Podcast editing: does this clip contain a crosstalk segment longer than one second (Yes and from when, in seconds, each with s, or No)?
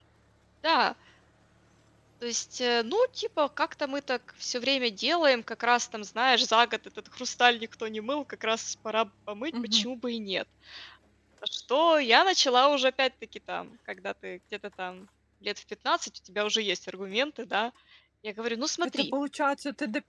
No